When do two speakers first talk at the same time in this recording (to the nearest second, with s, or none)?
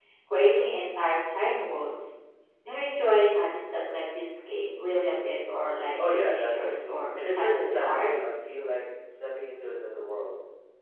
6 s